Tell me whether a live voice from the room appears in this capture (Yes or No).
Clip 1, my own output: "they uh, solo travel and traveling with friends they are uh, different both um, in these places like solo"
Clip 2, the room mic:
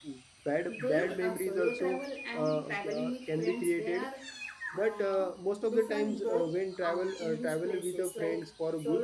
Yes